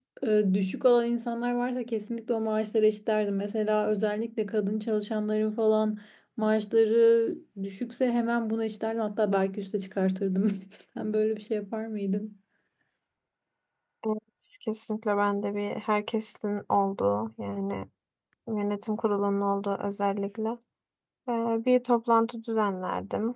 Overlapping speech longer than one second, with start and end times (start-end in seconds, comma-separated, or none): none